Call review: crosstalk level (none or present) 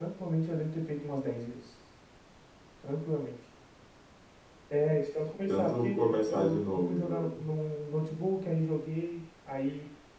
present